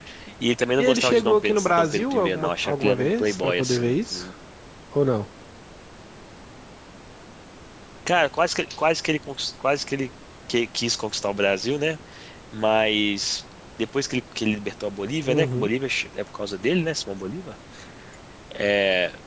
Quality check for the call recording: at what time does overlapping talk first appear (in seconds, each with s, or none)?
0.8 s